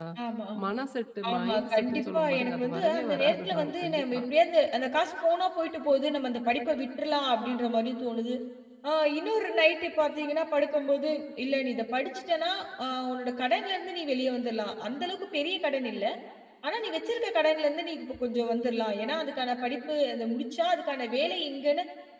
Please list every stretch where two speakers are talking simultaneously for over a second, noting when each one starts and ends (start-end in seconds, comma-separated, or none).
1.3-4.2